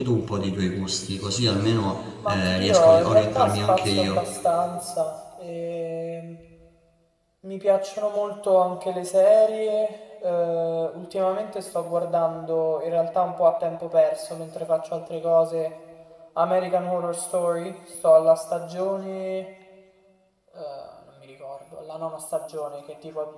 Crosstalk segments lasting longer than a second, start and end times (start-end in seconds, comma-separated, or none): 2.3-4.2